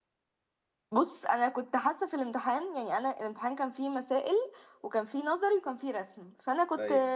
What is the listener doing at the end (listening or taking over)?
listening